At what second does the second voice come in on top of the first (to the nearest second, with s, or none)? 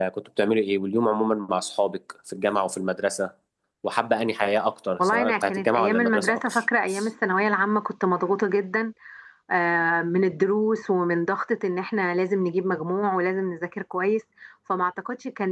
5 s